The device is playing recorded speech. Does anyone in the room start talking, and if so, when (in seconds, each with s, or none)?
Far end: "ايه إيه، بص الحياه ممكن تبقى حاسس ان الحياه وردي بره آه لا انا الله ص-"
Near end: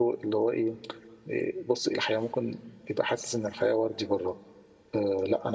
none